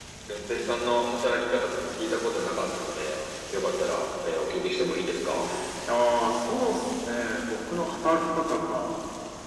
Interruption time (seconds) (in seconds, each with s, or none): none